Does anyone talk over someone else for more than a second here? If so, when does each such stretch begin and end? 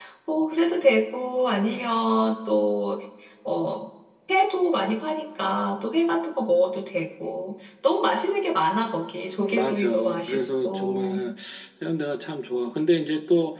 9.5-11.2

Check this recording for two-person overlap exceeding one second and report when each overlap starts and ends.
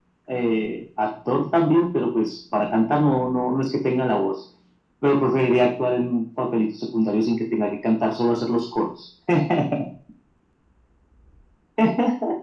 none

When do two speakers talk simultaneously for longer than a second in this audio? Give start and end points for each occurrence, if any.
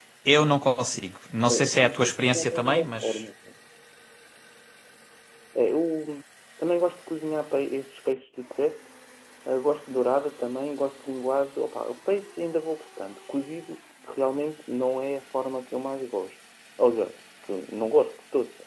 1.5-3.2

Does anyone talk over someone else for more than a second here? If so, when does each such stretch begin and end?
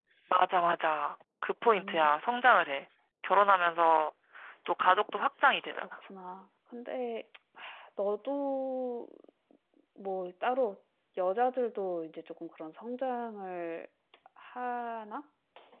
none

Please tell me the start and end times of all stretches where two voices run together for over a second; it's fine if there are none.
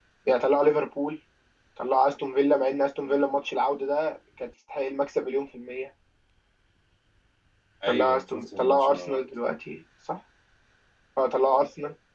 7.9-9.2

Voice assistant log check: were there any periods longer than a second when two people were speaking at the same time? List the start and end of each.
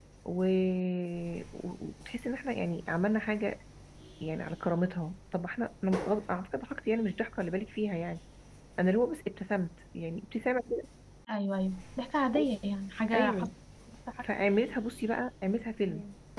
none

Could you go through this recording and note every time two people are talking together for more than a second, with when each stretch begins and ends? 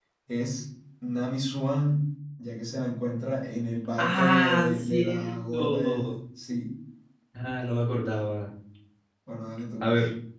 4.0-6.2

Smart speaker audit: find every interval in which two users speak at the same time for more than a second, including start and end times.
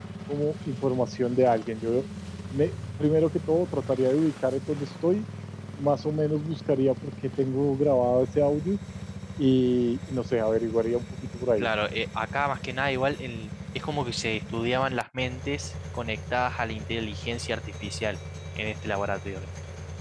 none

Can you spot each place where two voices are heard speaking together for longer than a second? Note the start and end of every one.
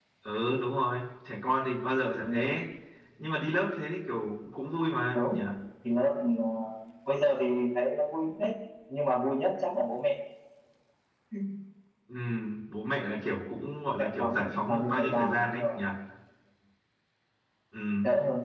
14.0-15.8

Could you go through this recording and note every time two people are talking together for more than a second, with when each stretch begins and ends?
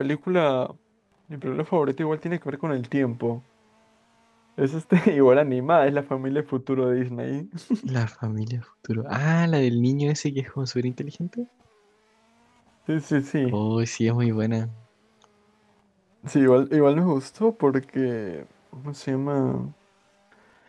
none

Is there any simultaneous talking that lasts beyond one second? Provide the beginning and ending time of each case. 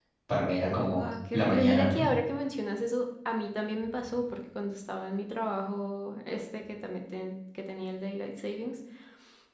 0.7-2.0

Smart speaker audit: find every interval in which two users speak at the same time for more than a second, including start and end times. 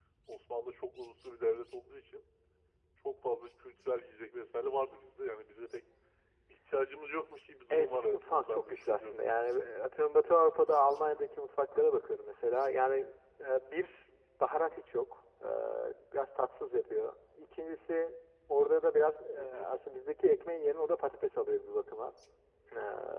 7.7-9.1

